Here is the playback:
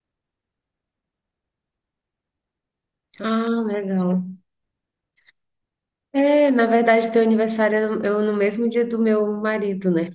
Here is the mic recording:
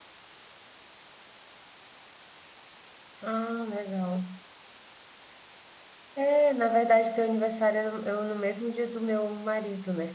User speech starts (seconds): none

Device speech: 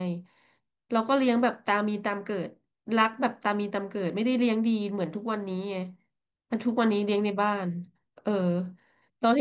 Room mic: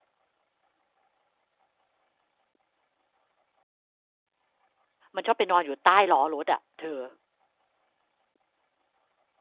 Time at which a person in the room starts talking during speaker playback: 5.2 s

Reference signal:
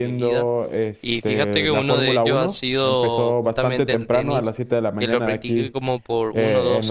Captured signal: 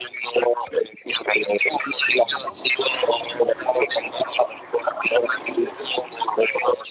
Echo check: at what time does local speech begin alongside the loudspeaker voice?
none

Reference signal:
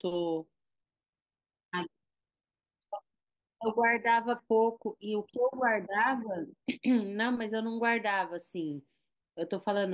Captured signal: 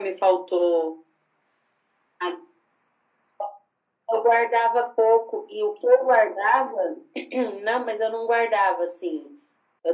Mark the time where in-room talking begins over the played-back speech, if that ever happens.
none

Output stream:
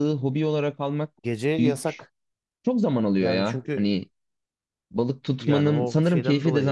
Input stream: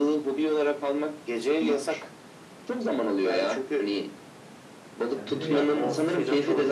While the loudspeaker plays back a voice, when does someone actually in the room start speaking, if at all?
5.1 s

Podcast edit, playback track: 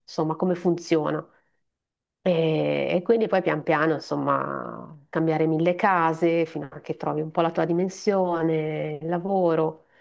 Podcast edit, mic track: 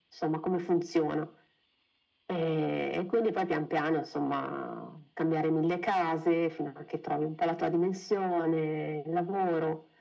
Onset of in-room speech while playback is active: none

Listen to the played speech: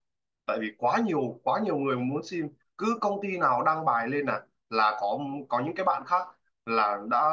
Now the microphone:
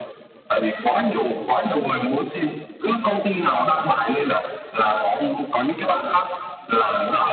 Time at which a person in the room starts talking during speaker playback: none

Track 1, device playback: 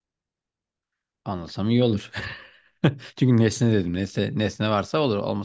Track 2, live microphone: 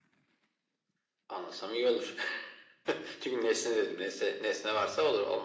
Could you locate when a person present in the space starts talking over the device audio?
none

